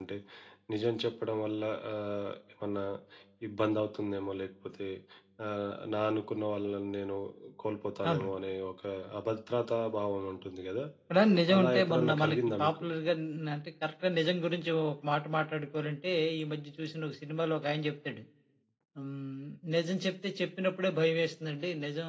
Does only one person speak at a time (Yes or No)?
No